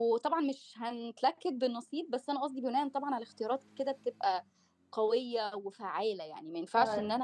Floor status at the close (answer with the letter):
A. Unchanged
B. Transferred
A